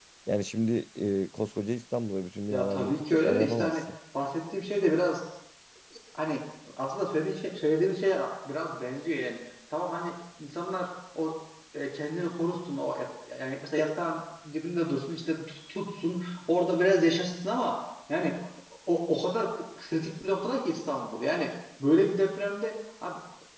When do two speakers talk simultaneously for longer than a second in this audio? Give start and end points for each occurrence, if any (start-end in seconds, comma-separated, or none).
2.5-3.8